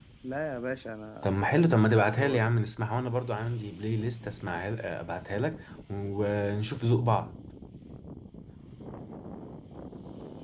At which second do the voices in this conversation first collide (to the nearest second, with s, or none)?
1 s